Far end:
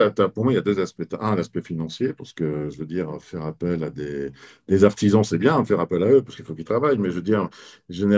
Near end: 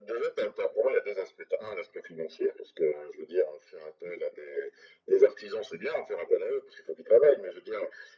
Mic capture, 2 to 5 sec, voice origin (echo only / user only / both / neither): echo only